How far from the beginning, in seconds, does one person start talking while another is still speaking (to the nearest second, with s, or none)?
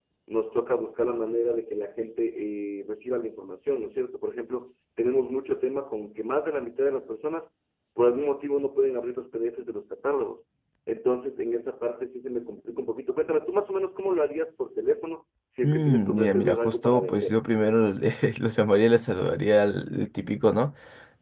16 s